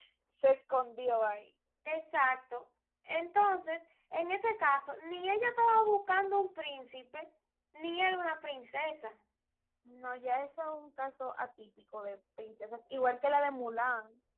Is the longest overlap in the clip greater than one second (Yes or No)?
No